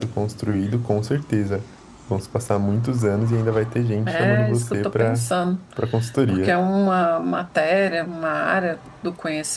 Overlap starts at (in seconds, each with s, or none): 4.0 s